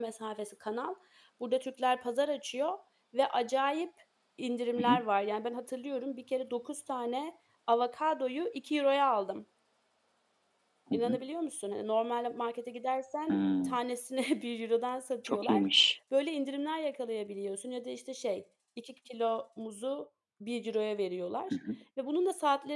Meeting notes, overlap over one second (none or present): none